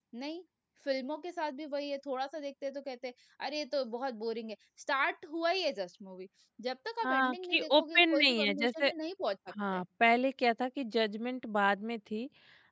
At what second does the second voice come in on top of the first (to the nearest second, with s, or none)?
7 s